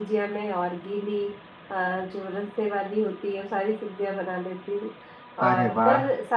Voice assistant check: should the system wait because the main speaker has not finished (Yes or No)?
Yes